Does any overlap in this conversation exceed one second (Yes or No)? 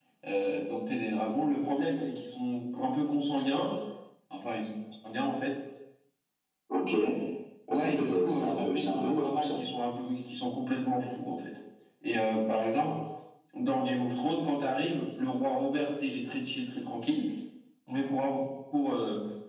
Yes